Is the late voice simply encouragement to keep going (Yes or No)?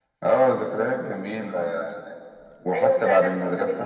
No